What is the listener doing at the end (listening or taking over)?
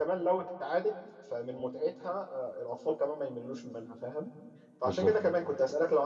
listening